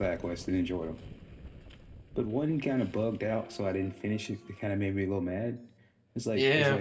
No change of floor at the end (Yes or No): Yes